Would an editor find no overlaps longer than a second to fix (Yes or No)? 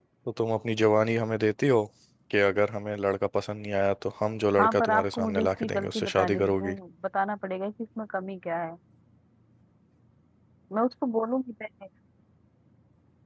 No